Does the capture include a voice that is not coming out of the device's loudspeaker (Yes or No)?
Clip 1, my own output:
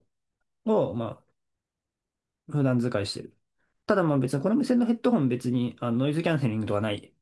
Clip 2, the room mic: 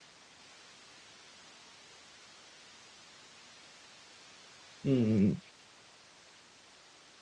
Yes